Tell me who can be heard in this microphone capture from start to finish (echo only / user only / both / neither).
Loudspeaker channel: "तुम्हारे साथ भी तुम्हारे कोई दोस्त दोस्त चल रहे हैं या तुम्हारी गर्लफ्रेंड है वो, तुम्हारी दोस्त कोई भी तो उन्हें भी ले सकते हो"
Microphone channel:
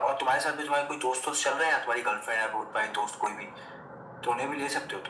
echo only